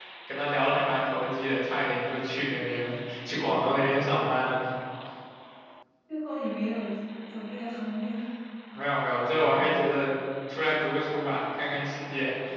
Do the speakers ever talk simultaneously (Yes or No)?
No